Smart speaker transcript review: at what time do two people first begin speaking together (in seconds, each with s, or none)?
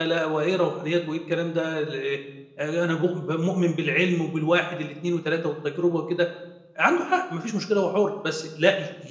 none